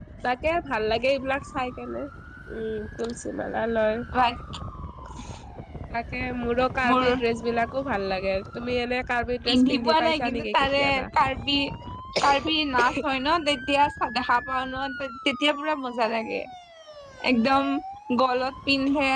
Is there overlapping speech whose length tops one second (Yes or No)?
Yes